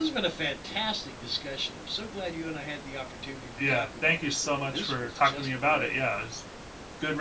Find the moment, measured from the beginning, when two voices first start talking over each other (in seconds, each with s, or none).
3.6 s